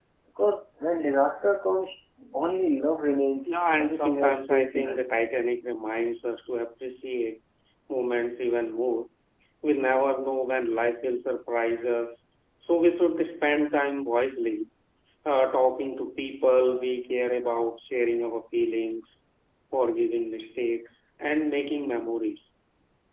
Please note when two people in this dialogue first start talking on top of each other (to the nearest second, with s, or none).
3 s